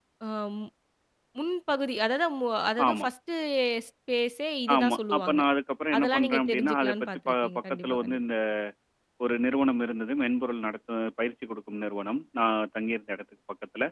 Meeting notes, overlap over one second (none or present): present